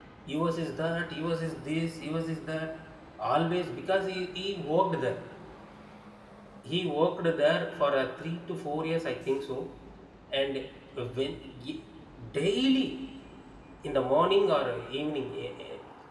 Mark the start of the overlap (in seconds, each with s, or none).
none